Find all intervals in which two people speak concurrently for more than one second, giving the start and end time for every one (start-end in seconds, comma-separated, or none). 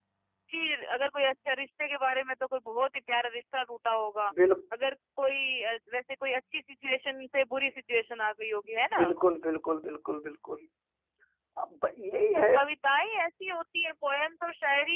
none